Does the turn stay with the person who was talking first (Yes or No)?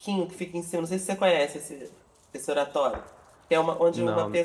Yes